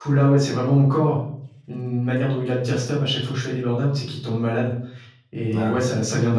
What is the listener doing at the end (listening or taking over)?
listening